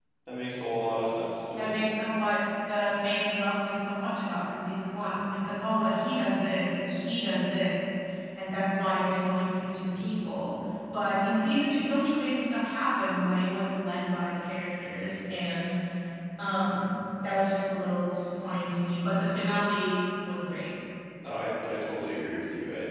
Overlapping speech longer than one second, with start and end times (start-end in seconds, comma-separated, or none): none